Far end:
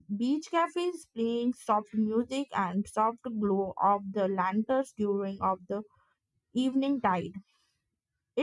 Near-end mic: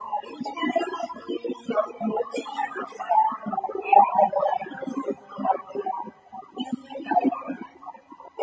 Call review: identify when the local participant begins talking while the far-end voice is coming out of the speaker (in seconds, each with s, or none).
none